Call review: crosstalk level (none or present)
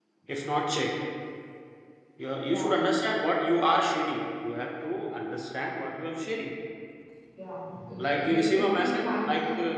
present